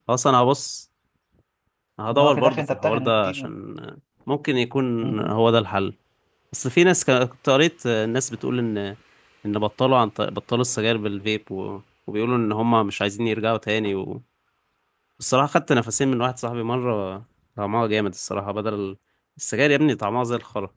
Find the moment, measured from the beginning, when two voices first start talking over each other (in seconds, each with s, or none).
2.1 s